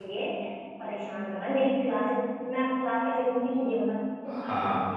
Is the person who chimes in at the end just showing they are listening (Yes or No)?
No